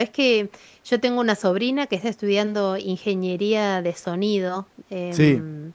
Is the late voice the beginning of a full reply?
No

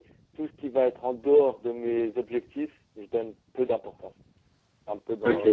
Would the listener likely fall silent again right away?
No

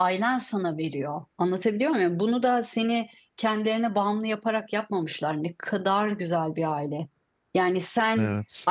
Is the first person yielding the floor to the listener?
No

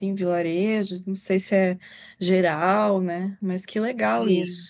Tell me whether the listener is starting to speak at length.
Yes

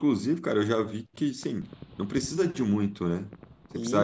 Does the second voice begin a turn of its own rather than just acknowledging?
No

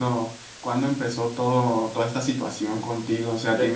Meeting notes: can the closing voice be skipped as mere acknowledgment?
No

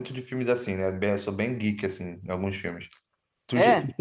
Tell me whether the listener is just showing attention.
Yes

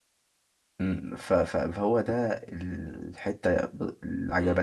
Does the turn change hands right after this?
Yes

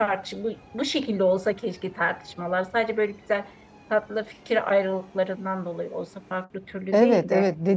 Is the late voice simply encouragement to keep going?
No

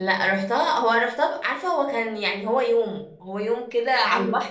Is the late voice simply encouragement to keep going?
Yes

